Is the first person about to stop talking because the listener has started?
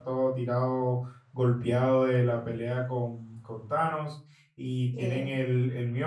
No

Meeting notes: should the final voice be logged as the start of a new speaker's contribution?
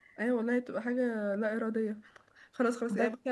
No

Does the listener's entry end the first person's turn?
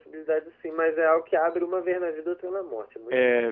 Yes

